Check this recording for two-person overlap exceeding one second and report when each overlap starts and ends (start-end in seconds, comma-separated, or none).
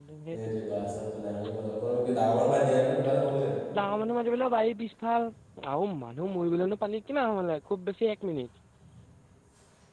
none